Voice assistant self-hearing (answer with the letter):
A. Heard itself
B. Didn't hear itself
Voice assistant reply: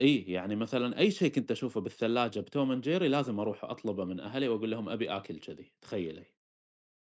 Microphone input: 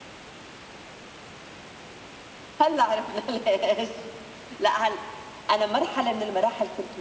B